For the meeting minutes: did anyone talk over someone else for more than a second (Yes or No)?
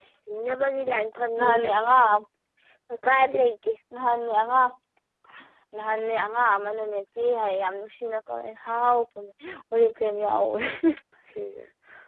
No